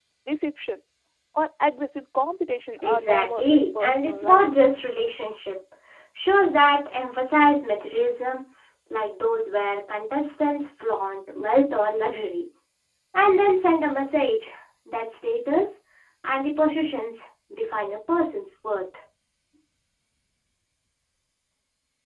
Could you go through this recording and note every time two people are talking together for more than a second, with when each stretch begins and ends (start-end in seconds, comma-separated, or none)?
2.8-4.5